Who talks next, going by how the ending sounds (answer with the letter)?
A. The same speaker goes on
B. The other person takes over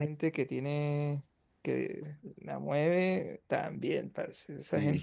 A